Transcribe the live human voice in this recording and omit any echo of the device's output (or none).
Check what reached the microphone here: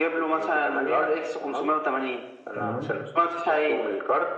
تمام